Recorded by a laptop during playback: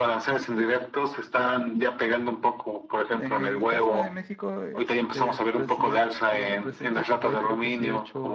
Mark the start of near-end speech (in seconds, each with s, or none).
3.1 s